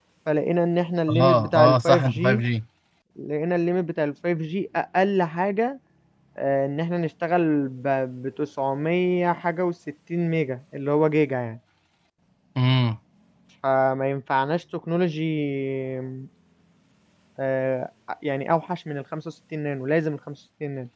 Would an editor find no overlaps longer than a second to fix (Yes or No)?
No